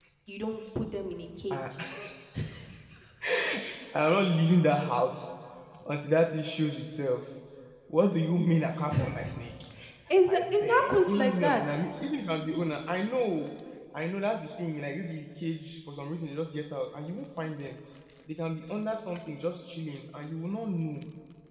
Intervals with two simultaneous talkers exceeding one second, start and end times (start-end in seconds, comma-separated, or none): 10.4-11.6